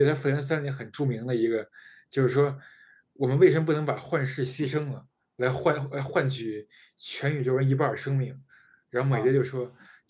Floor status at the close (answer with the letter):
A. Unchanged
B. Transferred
A